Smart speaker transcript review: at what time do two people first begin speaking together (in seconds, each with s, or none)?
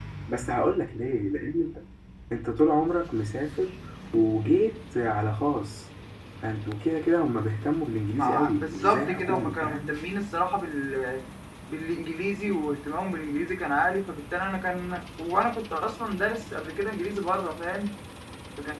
8.1 s